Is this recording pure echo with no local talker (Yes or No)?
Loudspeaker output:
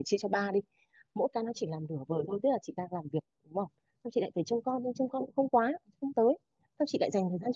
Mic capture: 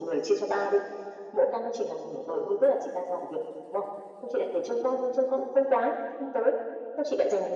Yes